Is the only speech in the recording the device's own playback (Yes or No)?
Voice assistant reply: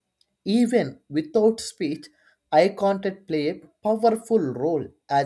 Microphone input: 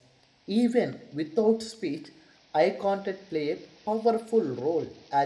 Yes